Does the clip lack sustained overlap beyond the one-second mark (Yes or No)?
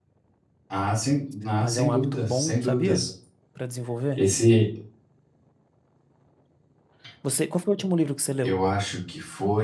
No